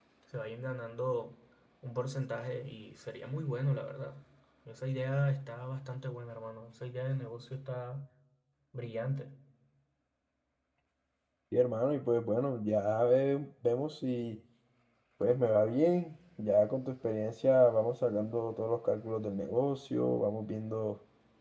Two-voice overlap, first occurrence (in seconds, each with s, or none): none